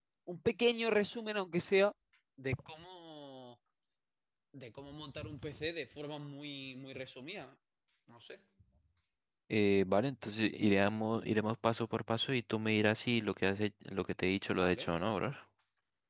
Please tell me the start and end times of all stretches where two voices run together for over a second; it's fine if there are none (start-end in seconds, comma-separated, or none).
none